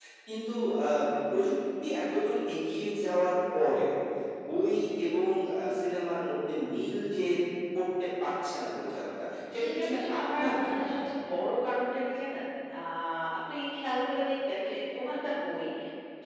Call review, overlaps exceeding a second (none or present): present